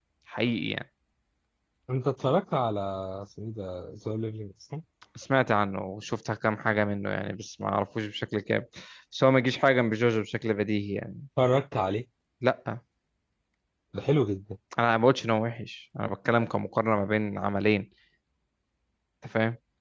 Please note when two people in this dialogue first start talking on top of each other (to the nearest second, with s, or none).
none